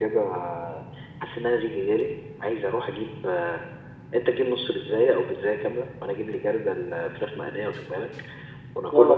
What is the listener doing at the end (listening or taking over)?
listening